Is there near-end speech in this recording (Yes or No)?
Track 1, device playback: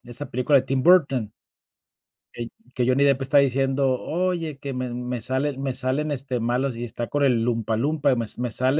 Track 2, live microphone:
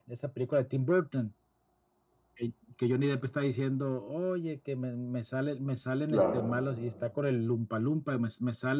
Yes